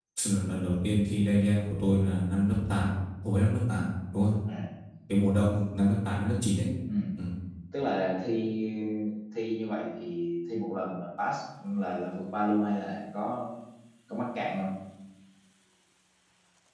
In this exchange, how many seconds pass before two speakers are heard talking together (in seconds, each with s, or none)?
none